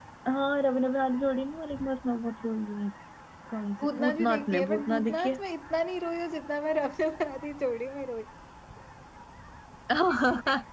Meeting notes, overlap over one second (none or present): present